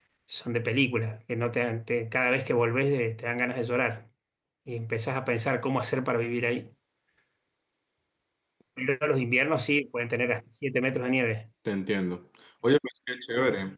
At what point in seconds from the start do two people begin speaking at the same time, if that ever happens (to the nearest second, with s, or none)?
none